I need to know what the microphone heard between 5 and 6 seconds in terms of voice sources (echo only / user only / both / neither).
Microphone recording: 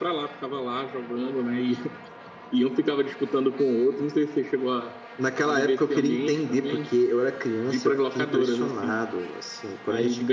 echo only